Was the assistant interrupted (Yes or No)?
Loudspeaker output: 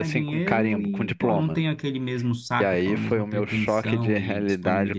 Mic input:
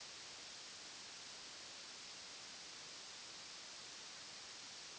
No